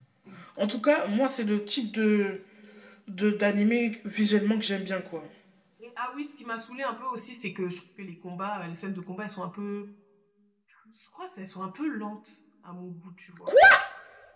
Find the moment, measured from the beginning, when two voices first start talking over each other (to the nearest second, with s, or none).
none